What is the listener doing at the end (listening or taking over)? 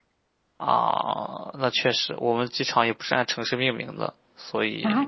taking over